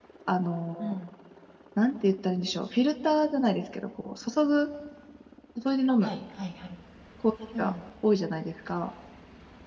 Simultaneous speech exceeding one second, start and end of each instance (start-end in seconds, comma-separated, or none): none